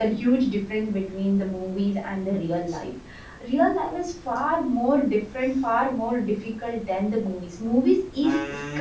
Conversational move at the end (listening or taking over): taking over